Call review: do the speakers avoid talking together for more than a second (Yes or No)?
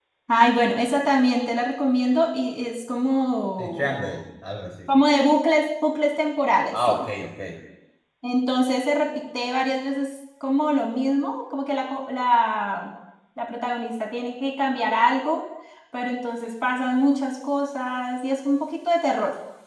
Yes